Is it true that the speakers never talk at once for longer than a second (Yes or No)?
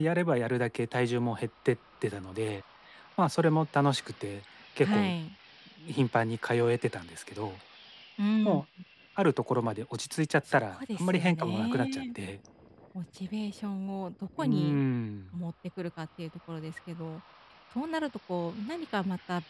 No